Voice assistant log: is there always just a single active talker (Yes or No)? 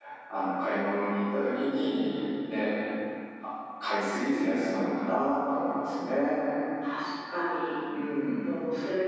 Yes